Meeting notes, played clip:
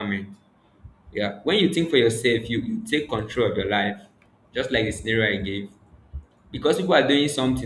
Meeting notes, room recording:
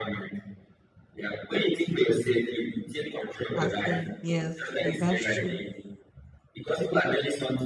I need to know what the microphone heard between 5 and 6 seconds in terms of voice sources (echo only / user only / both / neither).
both